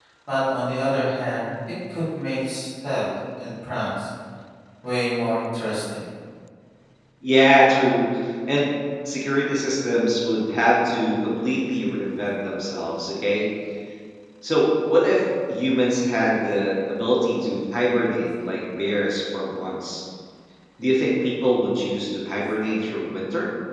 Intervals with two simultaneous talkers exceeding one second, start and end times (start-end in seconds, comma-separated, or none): none